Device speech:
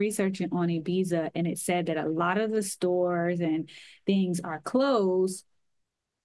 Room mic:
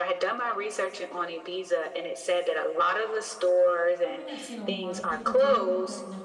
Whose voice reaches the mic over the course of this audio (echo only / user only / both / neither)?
both